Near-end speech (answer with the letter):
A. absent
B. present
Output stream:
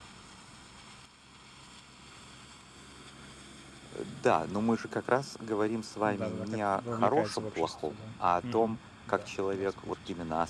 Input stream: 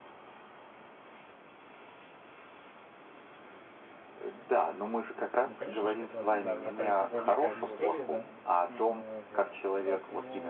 B